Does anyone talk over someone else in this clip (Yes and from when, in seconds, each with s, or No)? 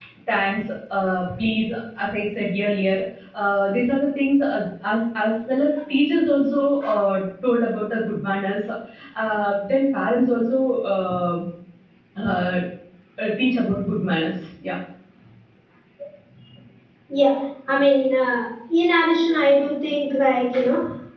No